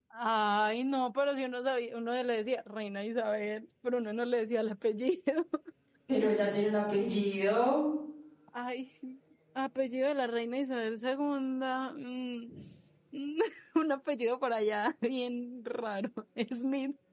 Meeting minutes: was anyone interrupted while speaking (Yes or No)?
No